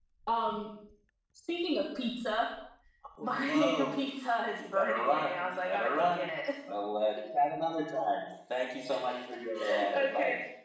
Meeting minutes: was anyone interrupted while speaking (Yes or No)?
Yes